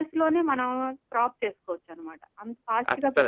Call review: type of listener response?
taking over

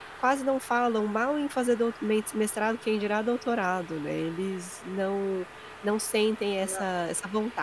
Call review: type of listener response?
listening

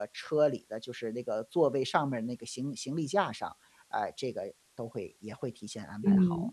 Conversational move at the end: taking over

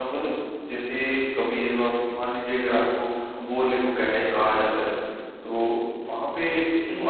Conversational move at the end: listening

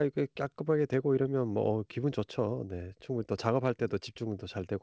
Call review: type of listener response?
listening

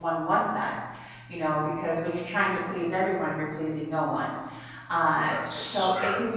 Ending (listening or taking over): listening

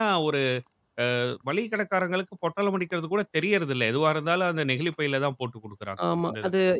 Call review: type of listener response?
taking over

